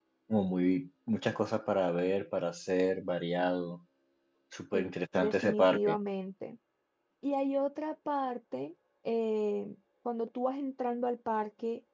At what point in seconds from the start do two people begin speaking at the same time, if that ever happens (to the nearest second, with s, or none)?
5 s